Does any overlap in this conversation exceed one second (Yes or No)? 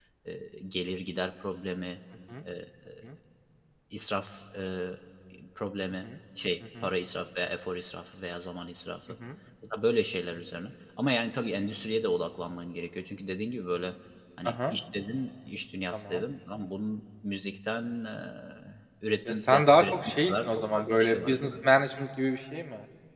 Yes